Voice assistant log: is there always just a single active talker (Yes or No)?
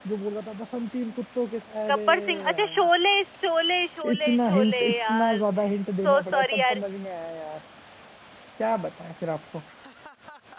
No